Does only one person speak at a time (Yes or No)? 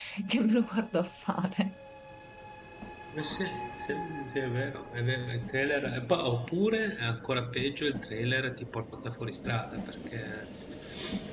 Yes